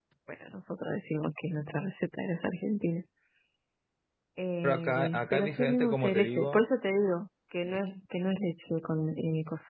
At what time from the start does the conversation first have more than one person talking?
4.6 s

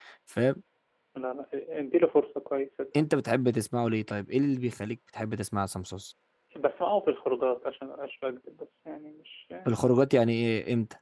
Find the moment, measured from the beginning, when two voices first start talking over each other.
none

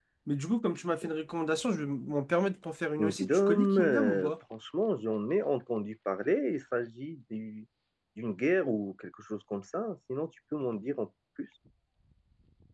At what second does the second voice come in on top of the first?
3.0 s

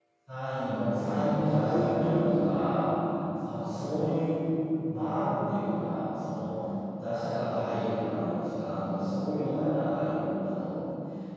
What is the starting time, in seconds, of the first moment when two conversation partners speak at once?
0.9 s

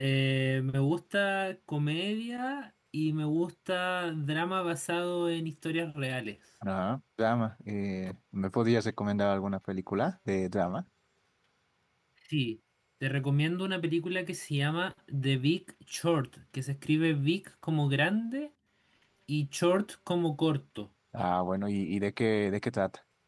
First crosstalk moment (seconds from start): none

